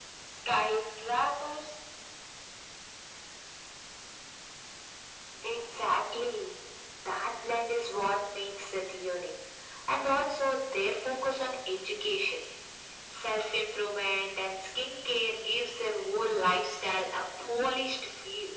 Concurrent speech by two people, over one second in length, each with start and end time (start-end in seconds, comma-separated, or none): none